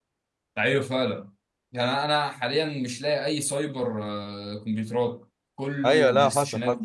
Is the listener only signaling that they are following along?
No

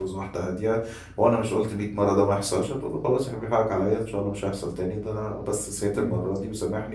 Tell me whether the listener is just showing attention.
Yes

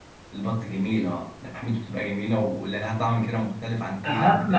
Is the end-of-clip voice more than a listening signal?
Yes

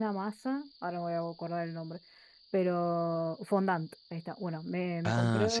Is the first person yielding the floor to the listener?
No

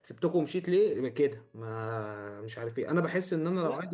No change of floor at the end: Yes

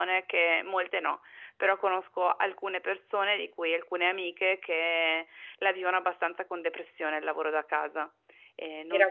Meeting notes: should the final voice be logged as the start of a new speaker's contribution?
Yes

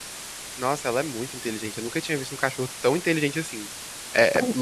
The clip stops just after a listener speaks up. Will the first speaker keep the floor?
Yes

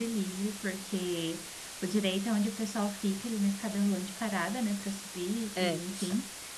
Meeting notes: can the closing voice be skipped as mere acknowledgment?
Yes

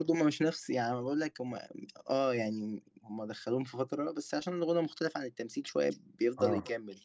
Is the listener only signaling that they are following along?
No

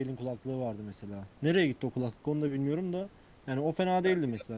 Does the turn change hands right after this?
No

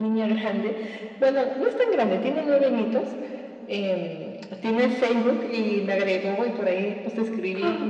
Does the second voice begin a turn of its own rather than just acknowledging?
No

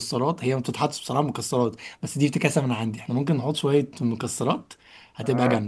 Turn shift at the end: Yes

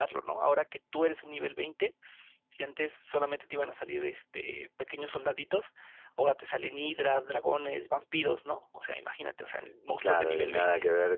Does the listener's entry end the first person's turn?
Yes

